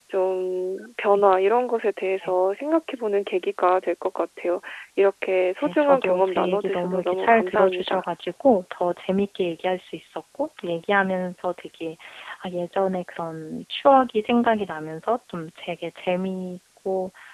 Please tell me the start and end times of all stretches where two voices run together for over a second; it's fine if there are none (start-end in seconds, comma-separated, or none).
5.6-8.0